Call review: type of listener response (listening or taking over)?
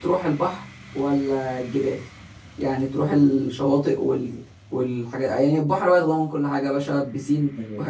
listening